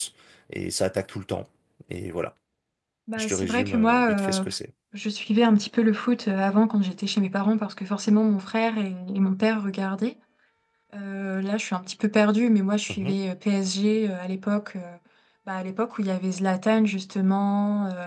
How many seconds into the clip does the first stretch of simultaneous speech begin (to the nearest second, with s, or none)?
3 s